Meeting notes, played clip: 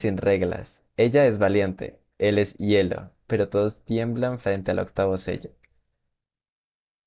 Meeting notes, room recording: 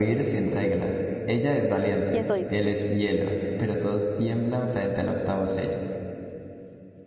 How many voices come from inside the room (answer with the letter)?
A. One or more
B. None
A